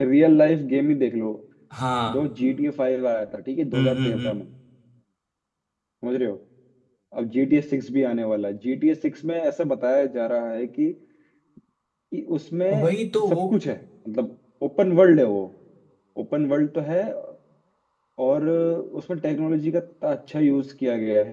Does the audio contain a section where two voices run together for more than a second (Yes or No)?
No